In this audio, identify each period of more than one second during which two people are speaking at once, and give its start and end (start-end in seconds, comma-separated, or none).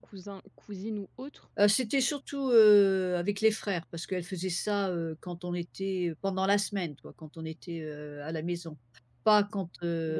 none